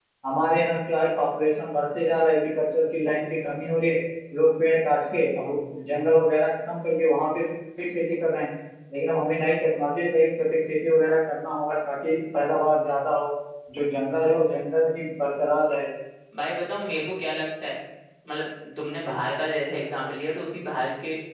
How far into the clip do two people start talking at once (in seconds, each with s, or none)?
none